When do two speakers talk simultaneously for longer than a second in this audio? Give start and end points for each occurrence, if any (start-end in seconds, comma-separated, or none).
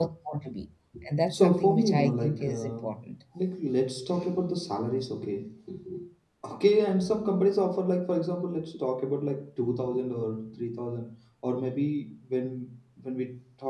1.2-2.7